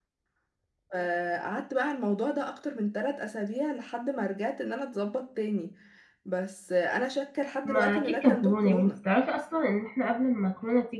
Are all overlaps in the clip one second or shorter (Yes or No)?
No